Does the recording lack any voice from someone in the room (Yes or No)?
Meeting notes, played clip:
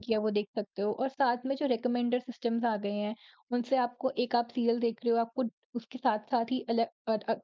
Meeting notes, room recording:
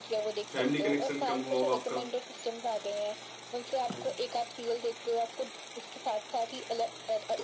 No